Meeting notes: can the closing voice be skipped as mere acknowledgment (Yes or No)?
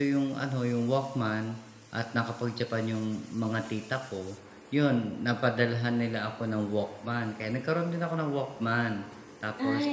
Yes